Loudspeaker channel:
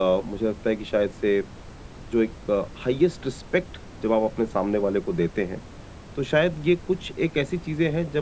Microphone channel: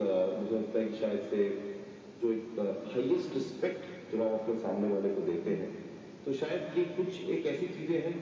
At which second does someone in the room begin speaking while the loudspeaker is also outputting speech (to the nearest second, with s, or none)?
none